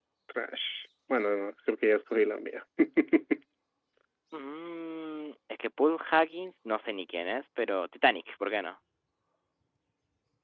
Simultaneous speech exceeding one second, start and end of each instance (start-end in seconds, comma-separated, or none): none